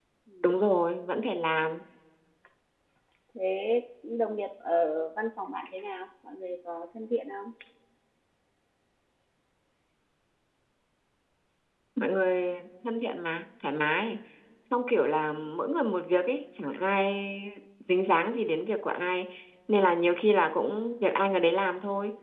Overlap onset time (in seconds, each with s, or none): none